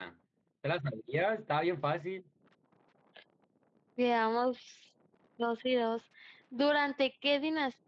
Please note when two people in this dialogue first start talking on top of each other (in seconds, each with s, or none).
none